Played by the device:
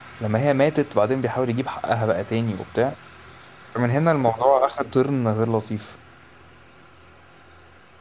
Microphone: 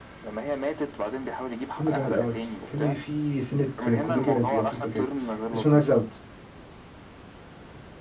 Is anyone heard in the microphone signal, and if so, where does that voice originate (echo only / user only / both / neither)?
both